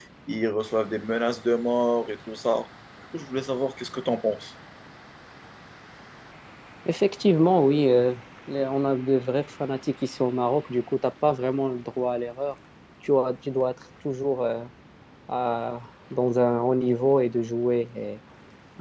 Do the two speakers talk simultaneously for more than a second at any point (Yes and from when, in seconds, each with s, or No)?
No